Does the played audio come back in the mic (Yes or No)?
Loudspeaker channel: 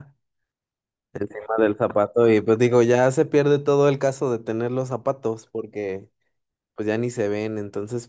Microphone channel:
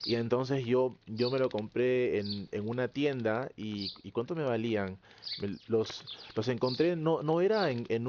No